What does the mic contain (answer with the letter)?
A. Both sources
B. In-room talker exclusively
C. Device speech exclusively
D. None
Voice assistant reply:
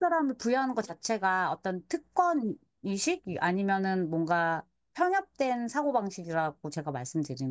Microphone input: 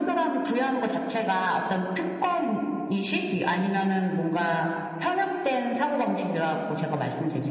C